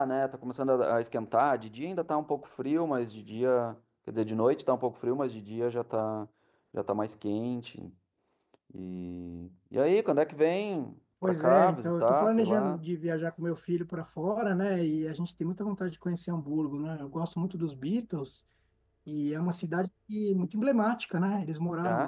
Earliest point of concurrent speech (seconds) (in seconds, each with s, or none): 11.2 s